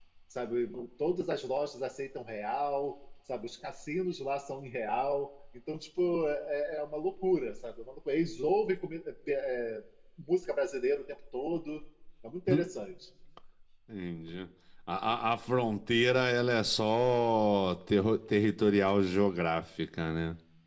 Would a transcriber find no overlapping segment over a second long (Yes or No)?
Yes